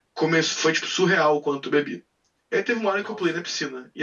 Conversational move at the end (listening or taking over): listening